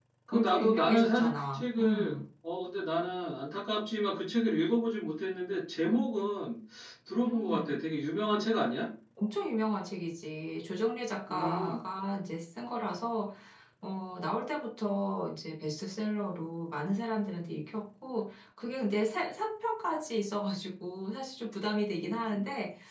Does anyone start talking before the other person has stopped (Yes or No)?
Yes